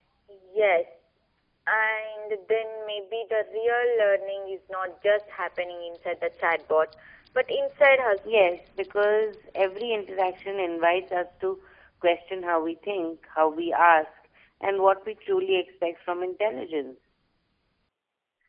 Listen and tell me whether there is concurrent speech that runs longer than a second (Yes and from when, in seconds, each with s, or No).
No